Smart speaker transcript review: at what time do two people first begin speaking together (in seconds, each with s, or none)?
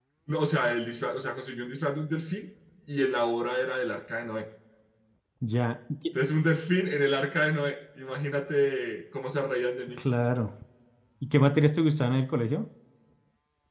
none